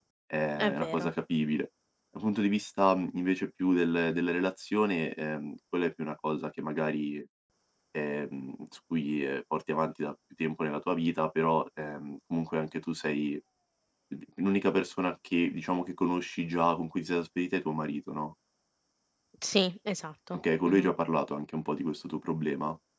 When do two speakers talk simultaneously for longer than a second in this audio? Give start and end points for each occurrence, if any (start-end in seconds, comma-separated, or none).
none